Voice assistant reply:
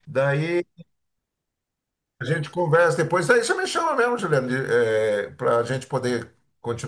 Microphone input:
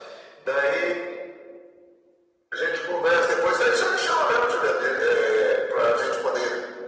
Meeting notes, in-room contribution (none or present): none